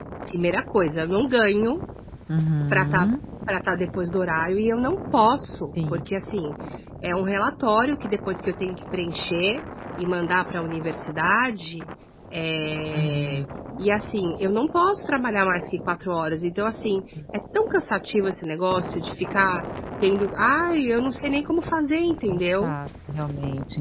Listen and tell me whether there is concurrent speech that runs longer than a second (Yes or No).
No